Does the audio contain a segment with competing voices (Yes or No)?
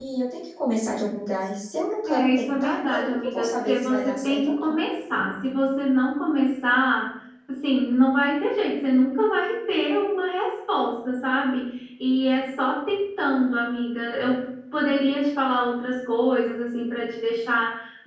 Yes